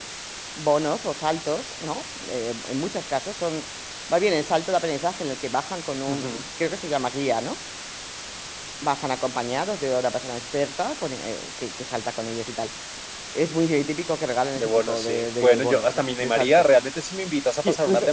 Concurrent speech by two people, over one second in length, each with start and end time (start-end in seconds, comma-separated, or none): 14.6-16.6